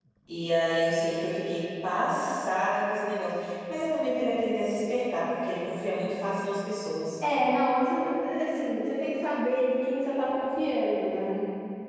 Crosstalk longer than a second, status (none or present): none